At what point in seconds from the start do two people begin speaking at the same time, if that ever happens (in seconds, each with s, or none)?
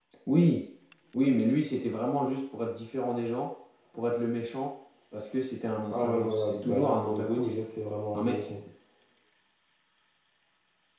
5.9 s